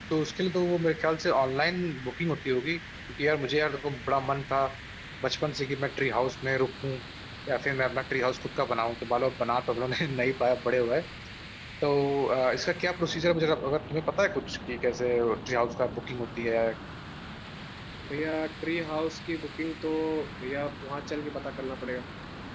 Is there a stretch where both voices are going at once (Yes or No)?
No